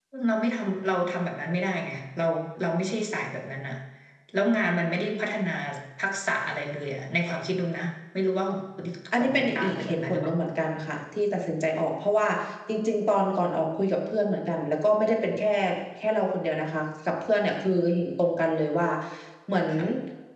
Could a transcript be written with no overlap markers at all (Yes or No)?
No